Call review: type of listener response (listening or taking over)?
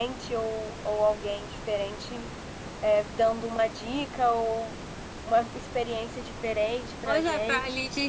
taking over